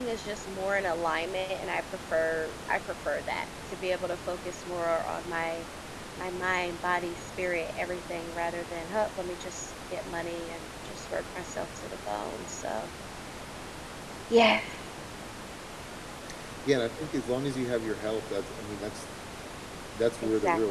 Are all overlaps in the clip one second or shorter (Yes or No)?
Yes